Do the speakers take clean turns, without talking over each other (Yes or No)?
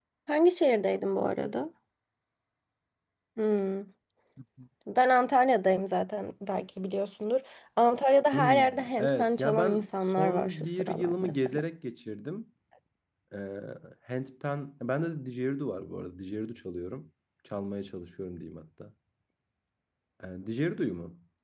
No